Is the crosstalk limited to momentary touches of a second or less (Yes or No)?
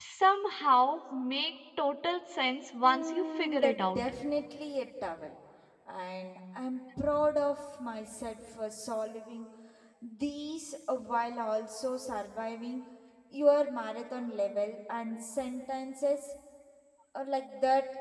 No